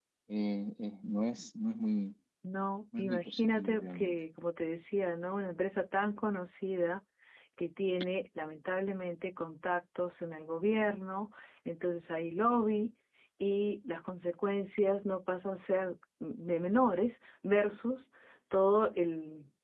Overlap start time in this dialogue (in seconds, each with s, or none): 3.0 s